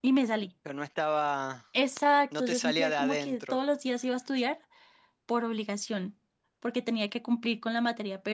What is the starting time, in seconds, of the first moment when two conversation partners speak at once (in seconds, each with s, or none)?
2.4 s